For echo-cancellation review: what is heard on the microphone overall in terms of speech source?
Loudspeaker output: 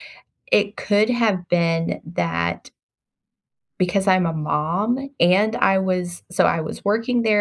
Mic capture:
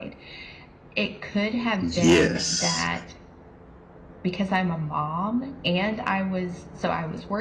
both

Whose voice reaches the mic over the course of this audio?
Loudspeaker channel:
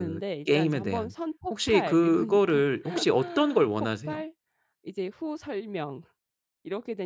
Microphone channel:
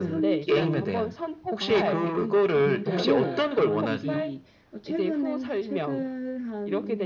both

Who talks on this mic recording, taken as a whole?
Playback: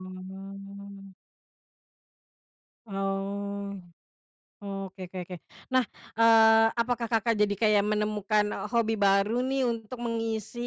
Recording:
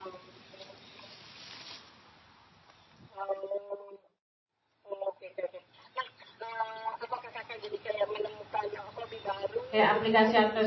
both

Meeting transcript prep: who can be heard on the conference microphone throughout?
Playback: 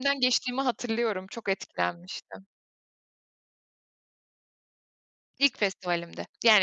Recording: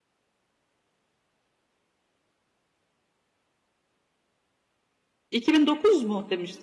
user only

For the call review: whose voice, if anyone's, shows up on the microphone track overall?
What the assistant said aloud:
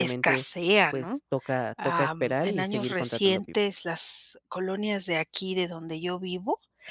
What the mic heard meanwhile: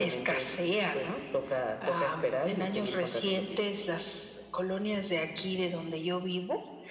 echo only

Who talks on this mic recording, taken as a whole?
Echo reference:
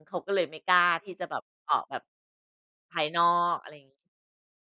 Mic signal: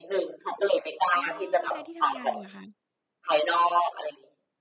both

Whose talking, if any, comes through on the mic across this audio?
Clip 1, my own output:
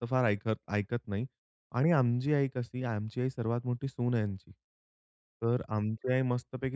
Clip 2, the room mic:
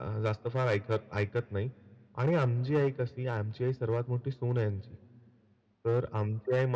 echo only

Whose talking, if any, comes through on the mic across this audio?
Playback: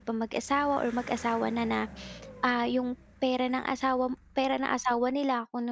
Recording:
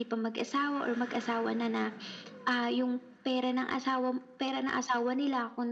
echo only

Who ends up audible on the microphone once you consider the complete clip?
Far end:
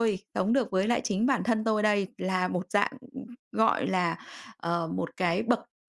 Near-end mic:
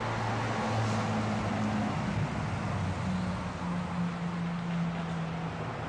neither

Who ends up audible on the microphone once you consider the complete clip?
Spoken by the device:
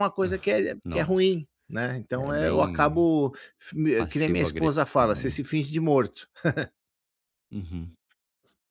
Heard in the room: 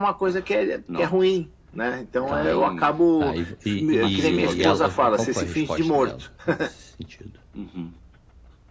both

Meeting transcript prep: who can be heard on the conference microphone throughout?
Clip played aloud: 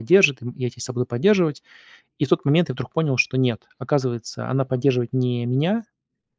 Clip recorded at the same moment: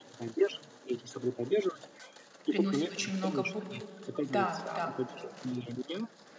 both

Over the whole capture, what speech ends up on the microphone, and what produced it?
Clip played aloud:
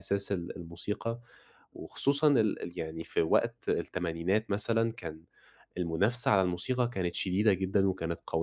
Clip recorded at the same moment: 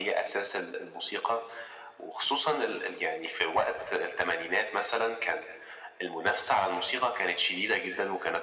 echo only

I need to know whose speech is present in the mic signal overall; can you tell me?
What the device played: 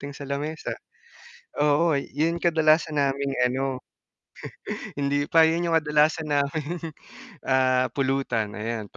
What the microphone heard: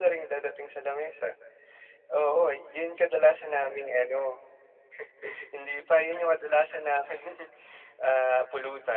echo only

